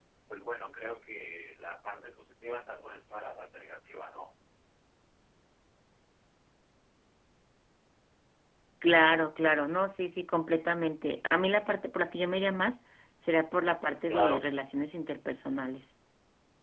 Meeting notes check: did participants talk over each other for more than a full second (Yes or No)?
No